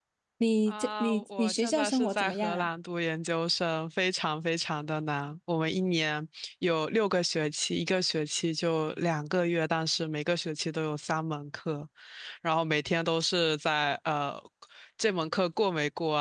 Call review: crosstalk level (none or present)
present